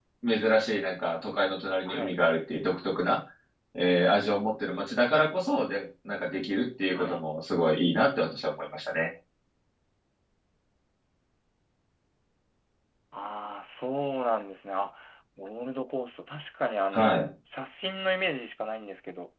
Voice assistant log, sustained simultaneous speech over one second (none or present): none